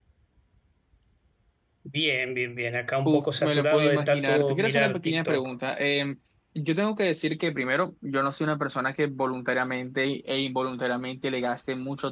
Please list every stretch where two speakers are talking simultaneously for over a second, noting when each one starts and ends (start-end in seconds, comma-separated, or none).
3.1-5.5